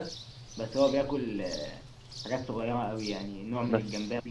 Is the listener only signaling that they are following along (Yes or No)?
Yes